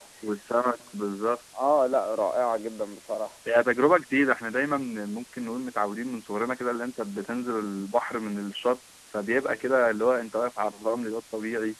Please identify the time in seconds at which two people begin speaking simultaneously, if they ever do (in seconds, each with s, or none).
none